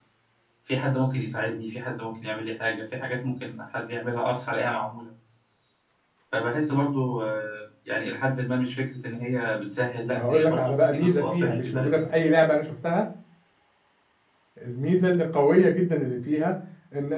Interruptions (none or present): present